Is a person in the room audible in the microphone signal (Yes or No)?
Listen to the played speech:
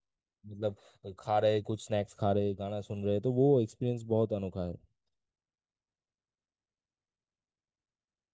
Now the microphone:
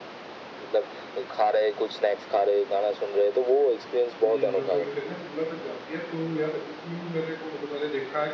Yes